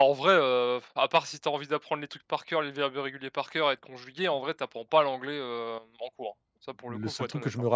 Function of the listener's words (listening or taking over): taking over